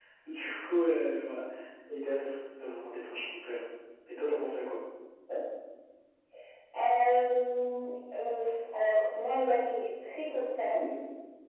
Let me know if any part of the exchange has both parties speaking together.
No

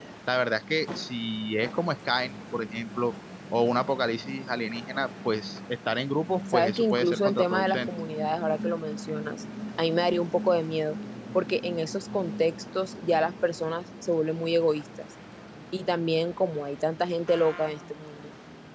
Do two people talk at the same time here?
Yes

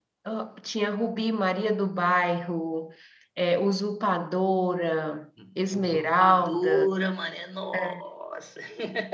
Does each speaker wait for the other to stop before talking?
No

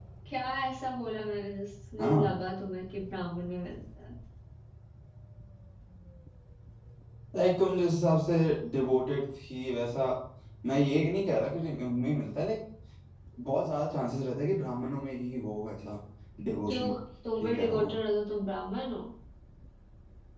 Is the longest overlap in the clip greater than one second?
No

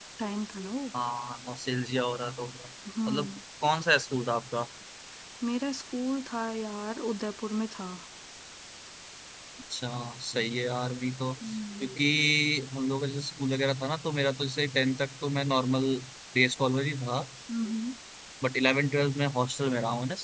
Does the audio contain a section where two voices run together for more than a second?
No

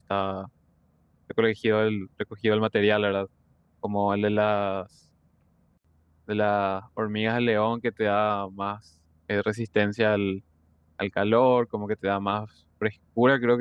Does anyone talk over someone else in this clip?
No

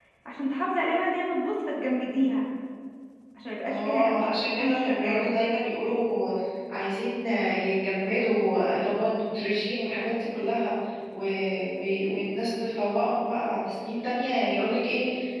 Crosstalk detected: Yes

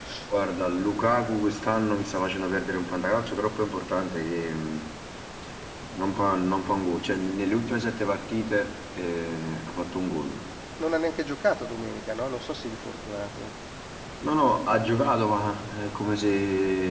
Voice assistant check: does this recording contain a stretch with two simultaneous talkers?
No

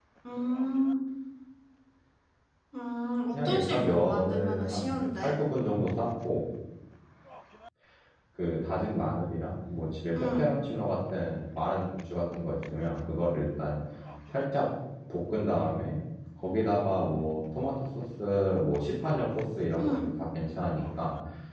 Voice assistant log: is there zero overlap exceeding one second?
No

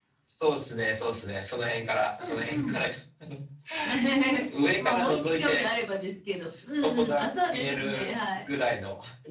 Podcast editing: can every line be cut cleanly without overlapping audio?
No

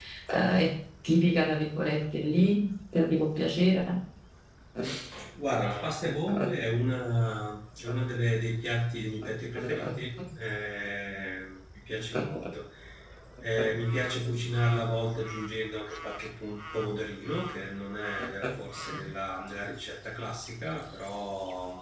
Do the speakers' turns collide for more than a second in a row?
No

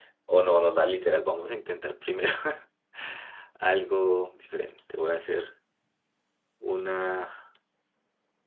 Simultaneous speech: No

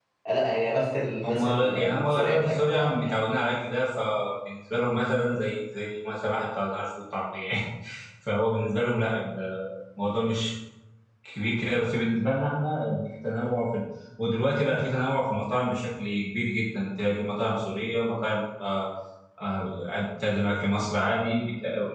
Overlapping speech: Yes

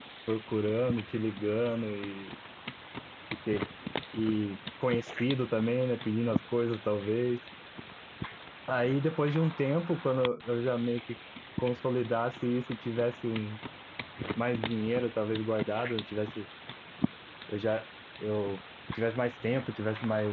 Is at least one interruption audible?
No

